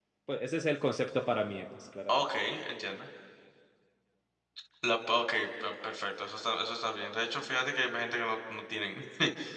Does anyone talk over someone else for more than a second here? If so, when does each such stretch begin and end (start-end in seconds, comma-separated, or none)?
none